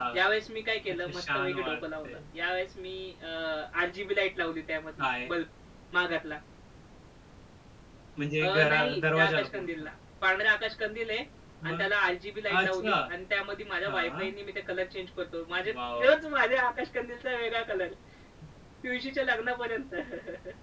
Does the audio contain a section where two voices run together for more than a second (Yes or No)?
Yes